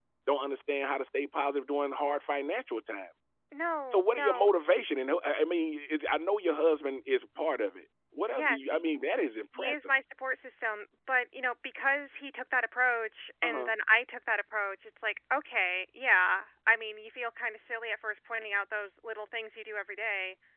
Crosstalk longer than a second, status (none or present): none